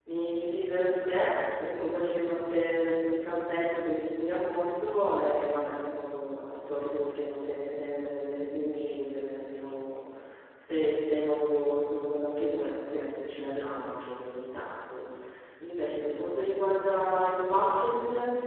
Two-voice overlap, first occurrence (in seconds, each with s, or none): none